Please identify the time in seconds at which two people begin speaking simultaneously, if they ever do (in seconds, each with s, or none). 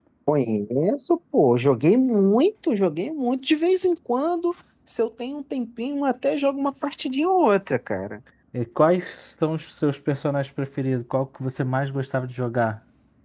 none